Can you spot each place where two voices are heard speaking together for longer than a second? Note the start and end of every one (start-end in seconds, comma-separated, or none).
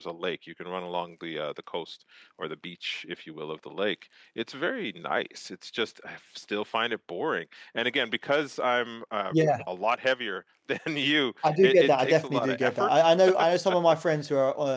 11.6-12.9